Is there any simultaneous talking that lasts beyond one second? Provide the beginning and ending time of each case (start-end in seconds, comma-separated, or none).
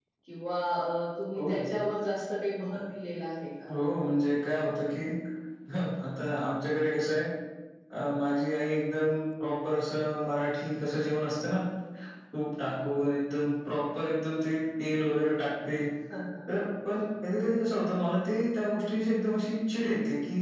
none